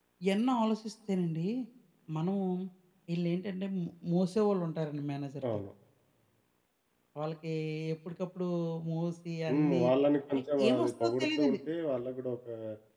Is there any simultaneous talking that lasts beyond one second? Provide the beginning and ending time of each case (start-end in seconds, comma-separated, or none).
10.3-11.6